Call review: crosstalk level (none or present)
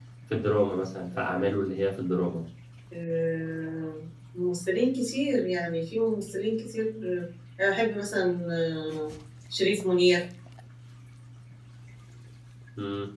none